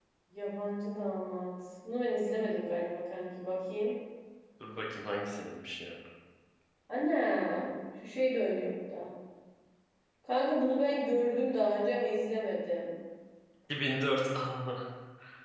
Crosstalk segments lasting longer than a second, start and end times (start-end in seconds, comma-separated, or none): none